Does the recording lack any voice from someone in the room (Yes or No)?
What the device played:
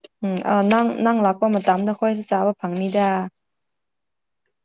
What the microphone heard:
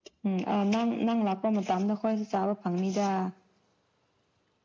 Yes